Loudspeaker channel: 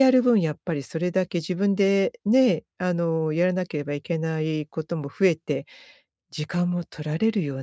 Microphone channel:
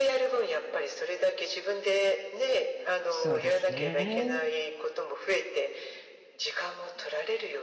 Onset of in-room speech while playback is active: 3.1 s

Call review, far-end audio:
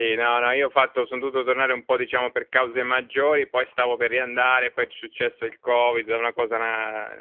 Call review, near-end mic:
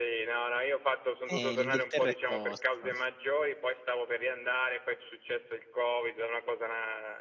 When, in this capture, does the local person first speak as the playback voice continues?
1.3 s

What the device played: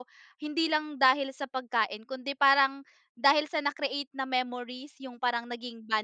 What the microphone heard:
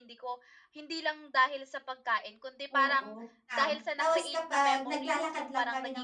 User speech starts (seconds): 2.7 s

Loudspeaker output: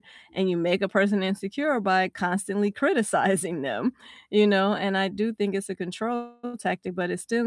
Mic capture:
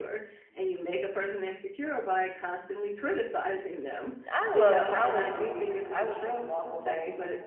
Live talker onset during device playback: 4.3 s

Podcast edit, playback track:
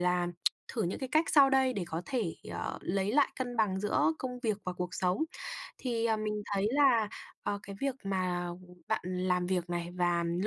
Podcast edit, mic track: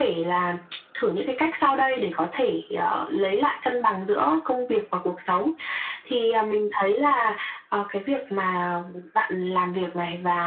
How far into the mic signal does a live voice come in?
none

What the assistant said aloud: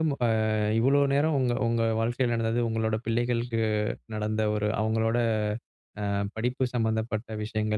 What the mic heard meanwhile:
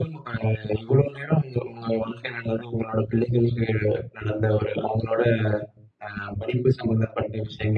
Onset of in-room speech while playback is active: none

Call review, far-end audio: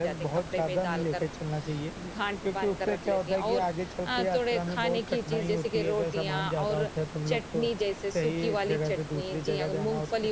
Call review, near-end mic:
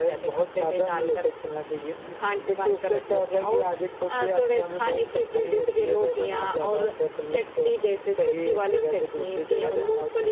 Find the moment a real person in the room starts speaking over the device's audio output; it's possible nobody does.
none

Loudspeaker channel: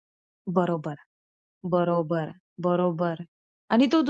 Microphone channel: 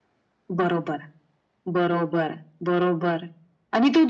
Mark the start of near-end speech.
none

